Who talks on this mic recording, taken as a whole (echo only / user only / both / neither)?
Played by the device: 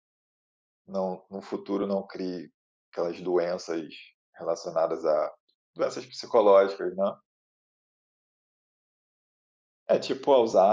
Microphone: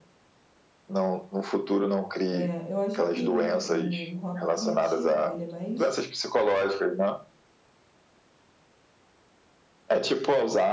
both